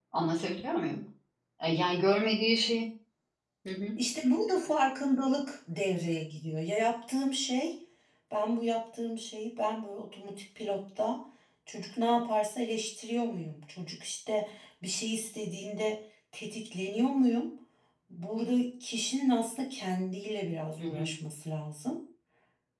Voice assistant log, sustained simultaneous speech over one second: none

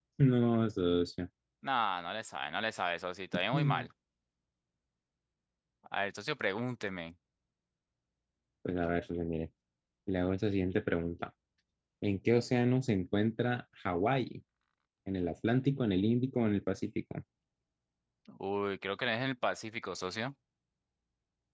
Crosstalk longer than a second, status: none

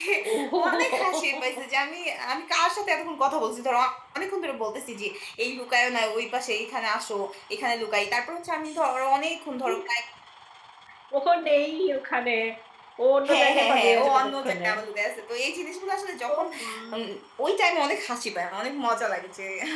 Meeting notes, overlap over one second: present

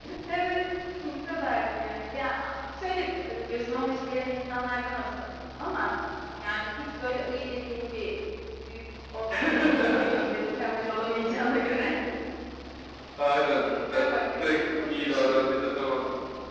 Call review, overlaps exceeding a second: present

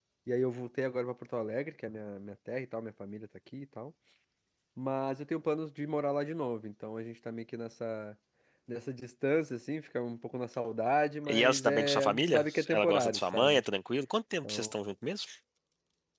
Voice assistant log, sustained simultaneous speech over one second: present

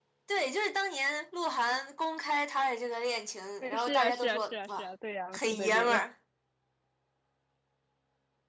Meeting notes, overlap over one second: present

